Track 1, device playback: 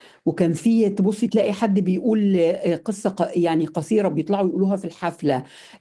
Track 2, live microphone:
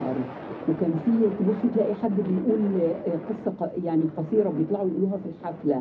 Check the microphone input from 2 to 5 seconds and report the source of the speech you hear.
echo only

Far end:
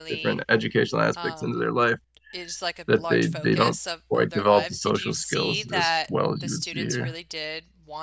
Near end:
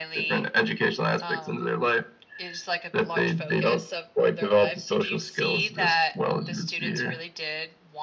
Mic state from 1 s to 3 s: echo only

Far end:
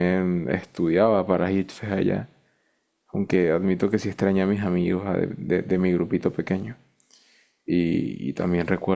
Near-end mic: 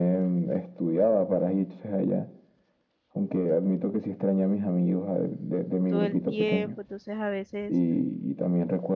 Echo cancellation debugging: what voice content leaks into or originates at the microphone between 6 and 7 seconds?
both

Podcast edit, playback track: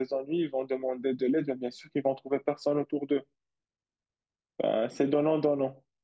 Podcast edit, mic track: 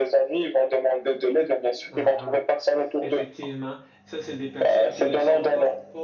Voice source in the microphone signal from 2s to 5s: both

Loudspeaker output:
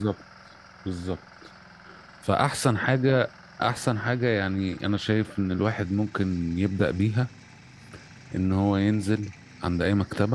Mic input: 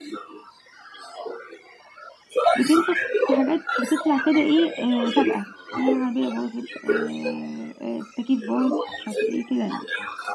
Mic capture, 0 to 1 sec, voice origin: echo only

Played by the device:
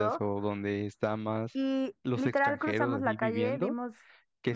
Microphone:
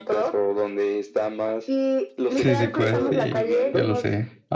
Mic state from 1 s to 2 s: echo only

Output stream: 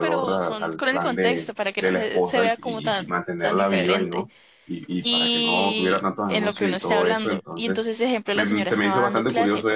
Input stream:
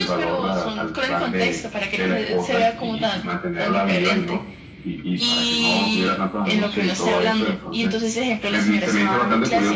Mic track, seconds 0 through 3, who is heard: echo only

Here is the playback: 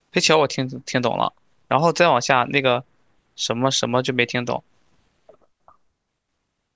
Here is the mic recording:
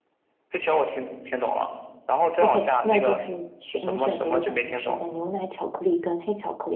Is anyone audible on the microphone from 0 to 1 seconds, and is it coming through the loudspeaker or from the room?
echo only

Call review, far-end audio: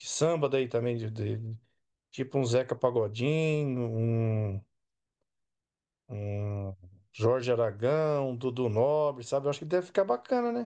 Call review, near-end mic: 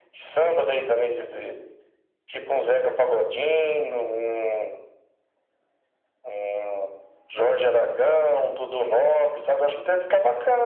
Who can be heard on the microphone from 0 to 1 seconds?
echo only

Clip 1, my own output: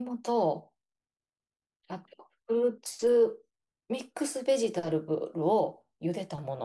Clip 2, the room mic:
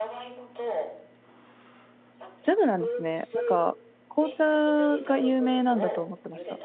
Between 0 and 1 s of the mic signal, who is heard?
echo only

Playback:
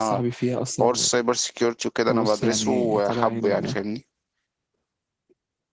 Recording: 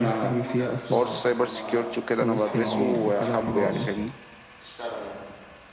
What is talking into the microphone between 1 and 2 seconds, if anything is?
both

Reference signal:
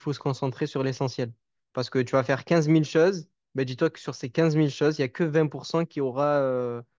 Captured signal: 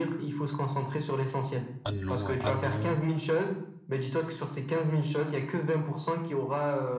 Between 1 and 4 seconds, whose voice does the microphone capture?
both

